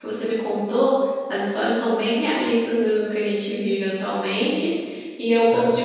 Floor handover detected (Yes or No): No